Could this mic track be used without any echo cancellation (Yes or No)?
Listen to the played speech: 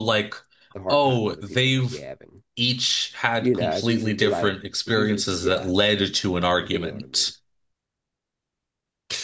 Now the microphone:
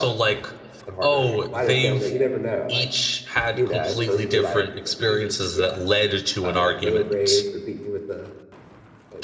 No